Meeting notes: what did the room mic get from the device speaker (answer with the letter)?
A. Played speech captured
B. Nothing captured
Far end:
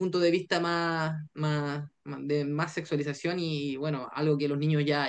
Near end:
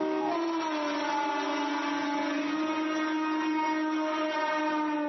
B